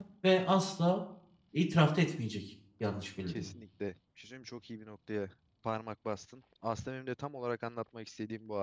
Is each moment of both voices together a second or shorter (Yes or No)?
Yes